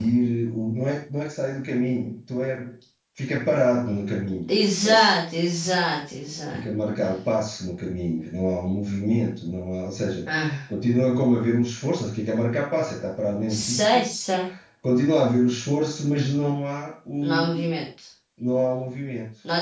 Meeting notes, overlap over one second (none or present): none